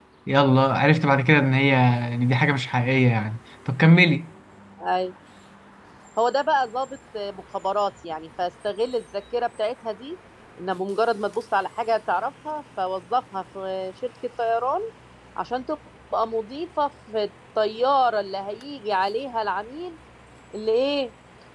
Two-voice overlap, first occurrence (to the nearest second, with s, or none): none